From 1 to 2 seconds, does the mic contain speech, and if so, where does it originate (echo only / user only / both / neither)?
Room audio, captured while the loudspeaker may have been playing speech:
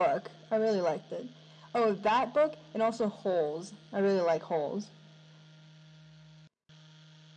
echo only